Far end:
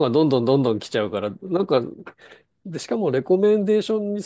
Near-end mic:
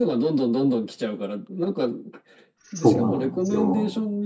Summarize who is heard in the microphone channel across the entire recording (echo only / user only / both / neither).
both